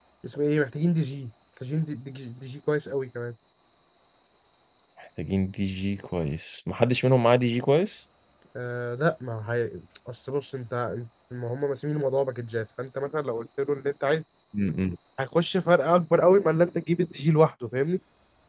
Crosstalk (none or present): none